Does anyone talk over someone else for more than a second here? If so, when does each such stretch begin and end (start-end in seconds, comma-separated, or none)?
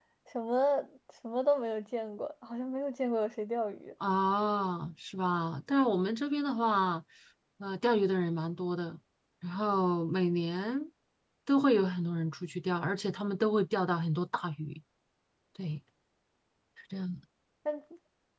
none